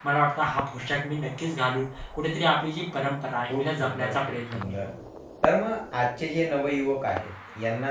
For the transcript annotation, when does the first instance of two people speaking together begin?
3.5 s

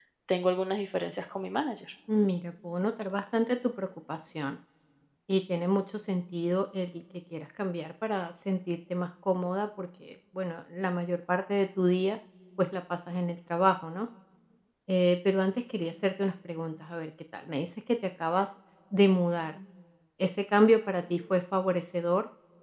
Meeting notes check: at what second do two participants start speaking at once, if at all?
none

